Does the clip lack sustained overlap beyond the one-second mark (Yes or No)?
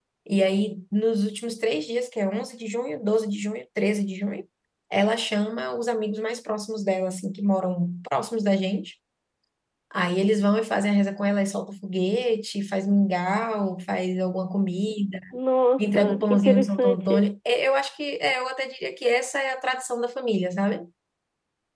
No